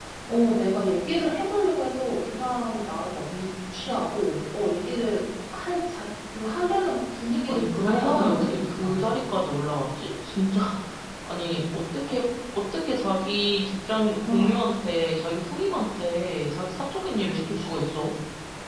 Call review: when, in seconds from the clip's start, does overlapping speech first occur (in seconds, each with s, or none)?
7.5 s